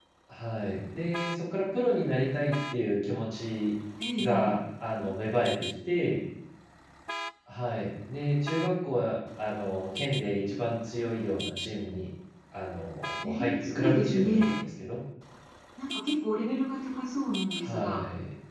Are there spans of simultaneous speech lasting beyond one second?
Yes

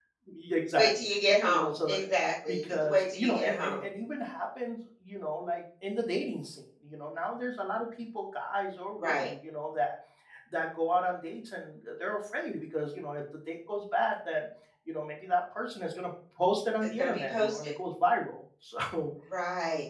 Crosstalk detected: Yes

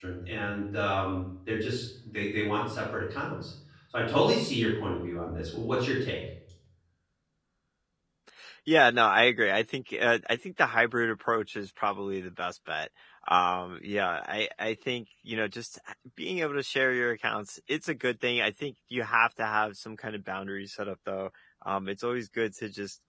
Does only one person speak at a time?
Yes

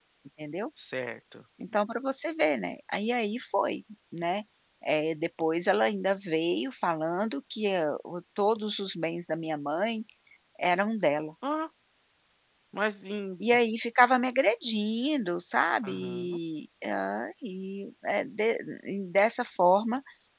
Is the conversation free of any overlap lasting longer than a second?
Yes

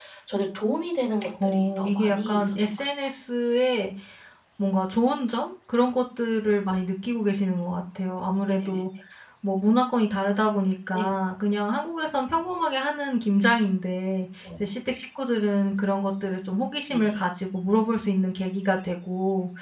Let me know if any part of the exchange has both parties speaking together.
Yes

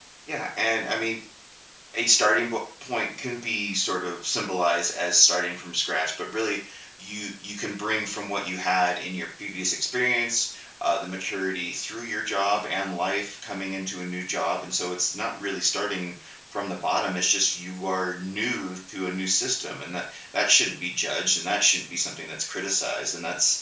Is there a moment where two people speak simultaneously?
No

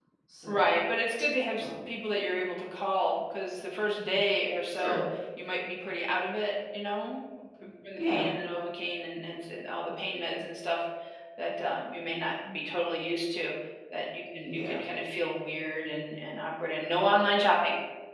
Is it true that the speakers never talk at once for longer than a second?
Yes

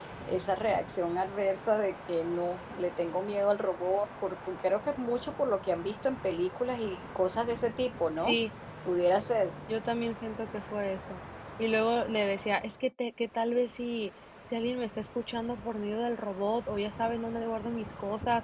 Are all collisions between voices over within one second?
Yes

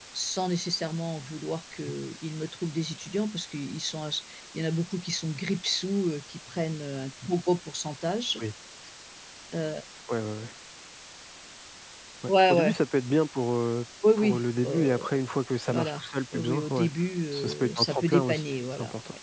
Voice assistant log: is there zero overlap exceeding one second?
No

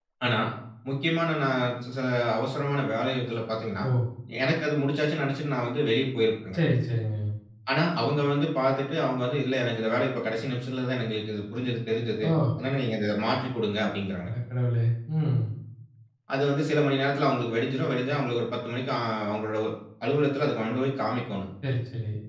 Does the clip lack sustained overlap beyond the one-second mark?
Yes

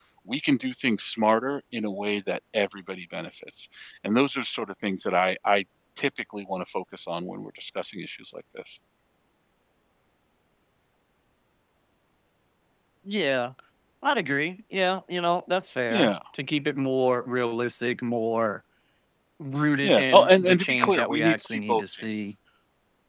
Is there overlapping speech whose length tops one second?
Yes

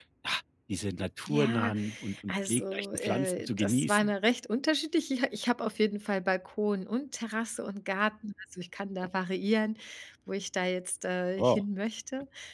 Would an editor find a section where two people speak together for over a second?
Yes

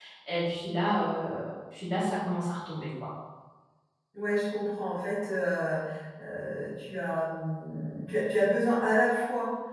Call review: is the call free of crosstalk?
Yes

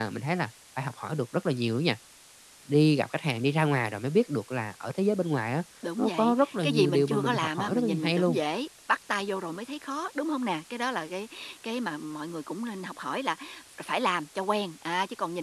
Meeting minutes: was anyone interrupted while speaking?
Yes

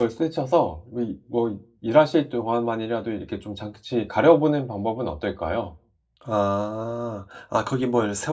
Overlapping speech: No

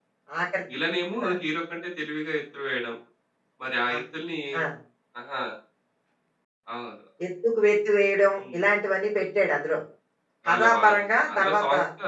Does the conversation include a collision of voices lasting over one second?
Yes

